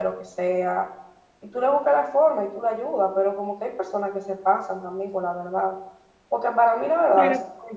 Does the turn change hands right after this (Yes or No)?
No